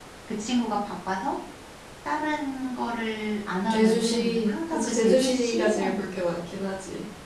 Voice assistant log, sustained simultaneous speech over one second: present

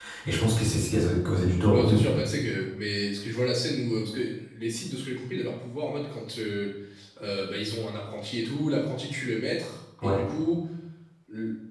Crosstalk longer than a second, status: none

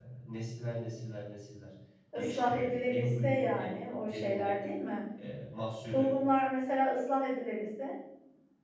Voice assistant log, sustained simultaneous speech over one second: present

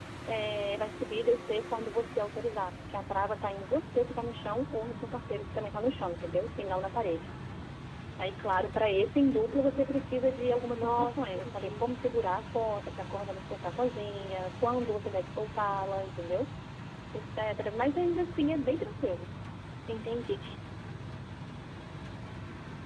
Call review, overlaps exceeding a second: present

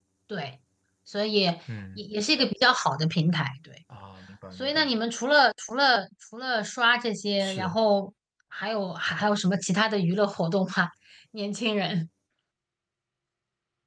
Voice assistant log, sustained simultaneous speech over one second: none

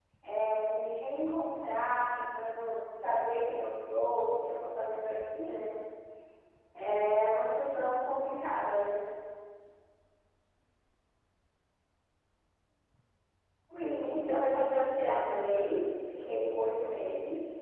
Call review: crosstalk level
present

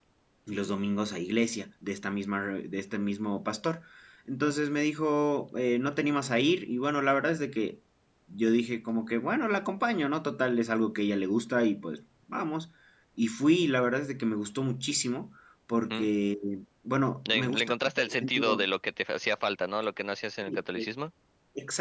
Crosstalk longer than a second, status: present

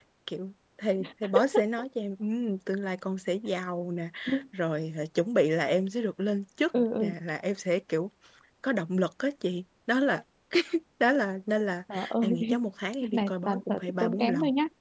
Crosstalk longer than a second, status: present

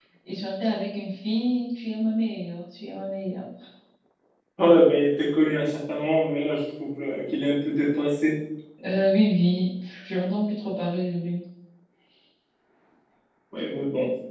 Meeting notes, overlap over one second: none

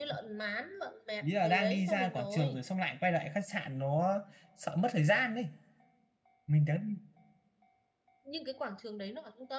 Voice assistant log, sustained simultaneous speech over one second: present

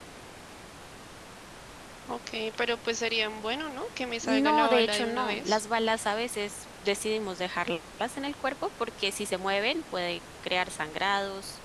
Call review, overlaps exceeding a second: present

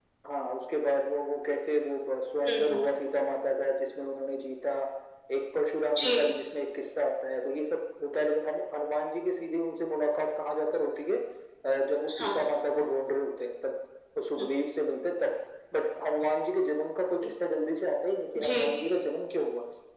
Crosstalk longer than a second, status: none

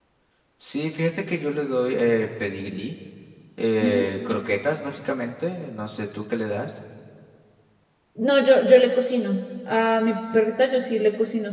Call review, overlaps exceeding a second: none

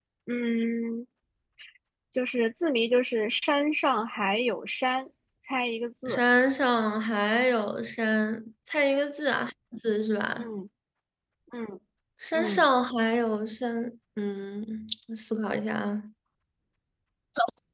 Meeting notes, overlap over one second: none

